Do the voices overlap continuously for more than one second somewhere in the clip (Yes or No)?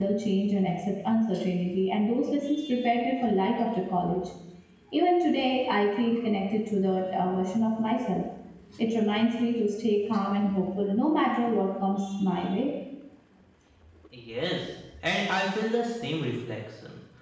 No